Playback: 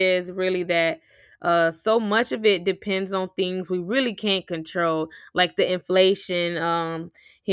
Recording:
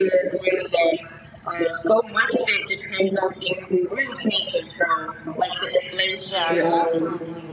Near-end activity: present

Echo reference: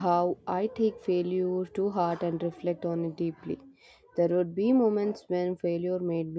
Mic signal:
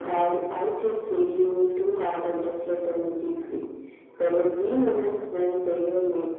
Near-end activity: none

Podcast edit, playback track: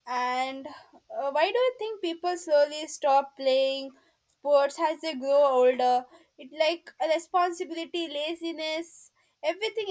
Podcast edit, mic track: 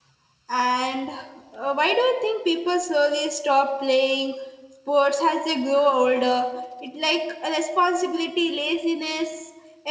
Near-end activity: none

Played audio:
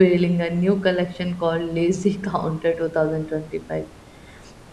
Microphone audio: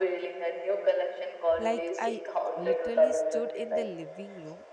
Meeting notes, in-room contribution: present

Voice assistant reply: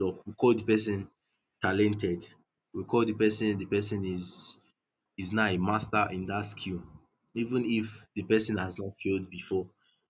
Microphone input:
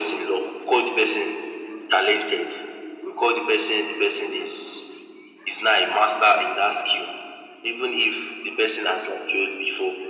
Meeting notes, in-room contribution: none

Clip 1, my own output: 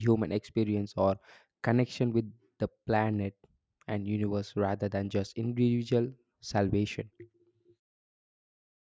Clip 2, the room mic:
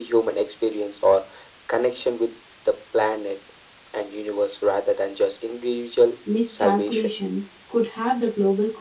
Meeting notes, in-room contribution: present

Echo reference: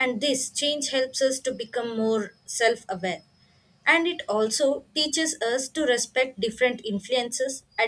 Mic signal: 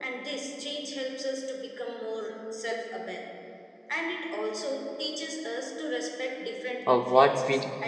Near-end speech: present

